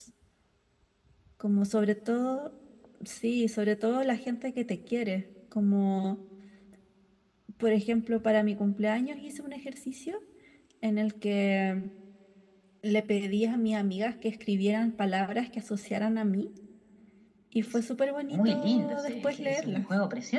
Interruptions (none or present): present